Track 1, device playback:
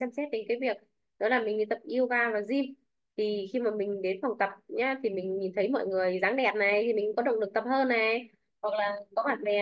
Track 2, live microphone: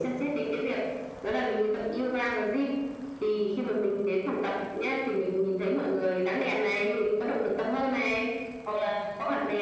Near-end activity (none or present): none